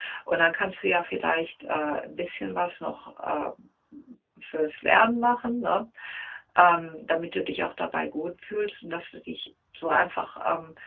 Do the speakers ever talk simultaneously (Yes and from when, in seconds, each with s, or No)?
No